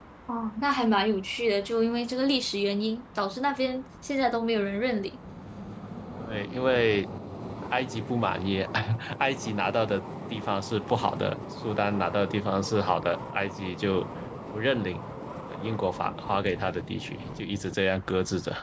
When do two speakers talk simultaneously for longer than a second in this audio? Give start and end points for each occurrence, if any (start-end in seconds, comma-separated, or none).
none